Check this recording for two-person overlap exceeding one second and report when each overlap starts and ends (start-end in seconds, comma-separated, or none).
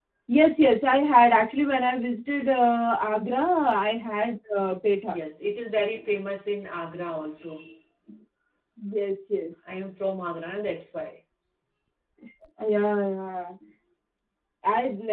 none